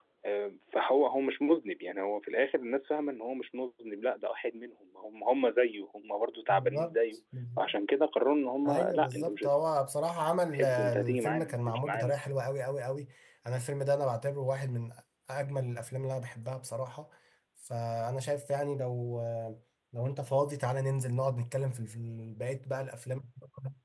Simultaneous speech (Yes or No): Yes